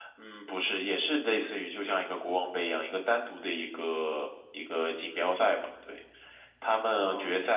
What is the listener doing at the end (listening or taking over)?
listening